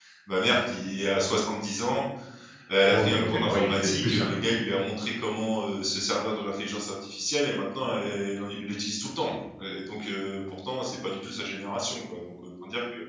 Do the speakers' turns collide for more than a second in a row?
Yes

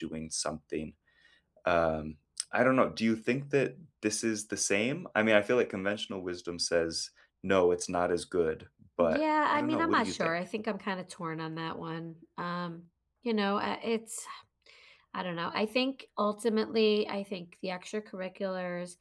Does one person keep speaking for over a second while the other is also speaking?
Yes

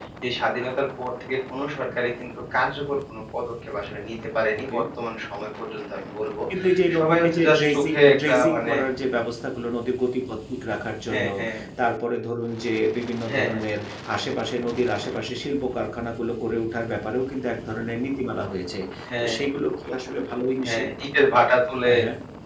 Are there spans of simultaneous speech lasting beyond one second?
Yes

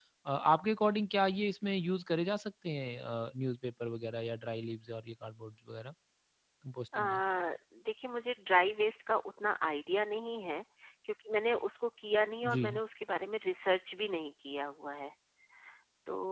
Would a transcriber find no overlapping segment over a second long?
Yes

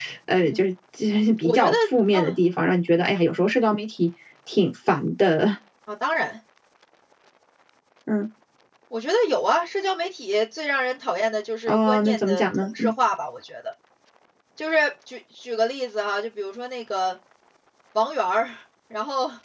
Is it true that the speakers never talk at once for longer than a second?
No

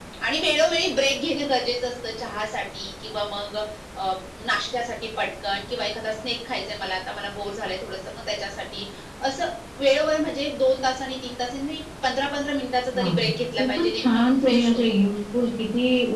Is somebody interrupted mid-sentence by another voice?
Yes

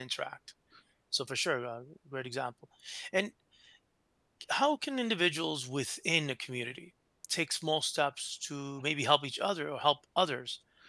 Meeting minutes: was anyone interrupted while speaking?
No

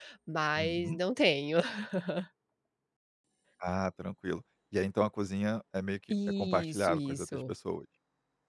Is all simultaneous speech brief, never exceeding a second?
No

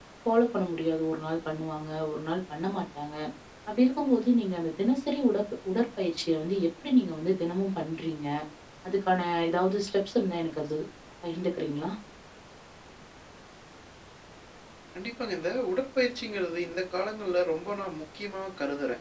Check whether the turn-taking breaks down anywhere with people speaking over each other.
No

